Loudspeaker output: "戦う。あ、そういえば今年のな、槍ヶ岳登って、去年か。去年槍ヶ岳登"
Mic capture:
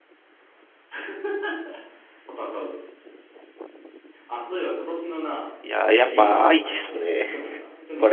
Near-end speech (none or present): present